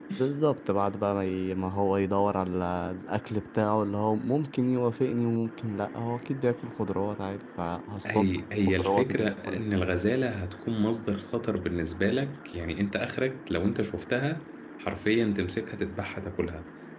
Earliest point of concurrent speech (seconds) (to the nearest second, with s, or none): 8 s